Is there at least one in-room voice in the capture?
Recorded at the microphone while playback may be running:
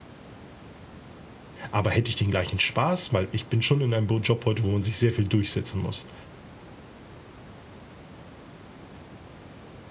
Yes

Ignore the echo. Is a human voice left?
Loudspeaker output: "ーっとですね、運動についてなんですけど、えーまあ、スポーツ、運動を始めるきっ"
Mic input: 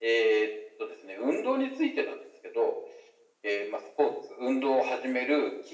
No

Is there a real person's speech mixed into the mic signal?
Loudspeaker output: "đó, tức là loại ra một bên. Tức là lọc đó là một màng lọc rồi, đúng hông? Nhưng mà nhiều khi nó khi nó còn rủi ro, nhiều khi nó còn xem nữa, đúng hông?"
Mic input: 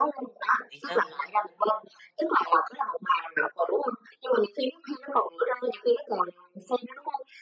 Yes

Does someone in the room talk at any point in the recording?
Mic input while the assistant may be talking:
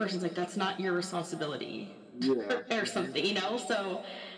Yes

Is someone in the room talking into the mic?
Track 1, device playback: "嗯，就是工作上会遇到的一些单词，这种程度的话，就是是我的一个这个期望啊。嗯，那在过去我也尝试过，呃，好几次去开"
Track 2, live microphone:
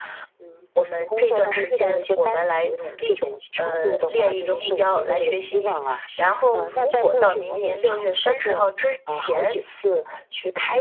Yes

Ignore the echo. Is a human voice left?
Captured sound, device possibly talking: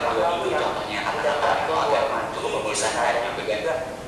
No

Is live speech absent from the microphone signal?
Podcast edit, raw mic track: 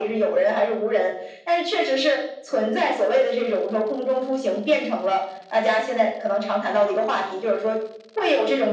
Yes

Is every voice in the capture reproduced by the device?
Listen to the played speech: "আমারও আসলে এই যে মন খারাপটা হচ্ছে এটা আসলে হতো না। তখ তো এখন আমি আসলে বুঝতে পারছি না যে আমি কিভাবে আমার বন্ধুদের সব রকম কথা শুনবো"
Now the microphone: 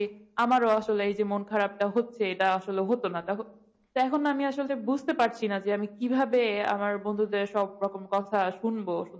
Yes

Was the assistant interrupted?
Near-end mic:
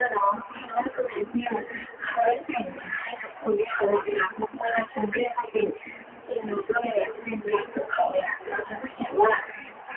No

